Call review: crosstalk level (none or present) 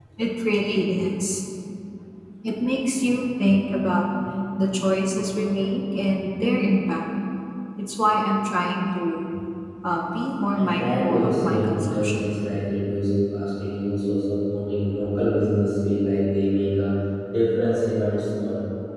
present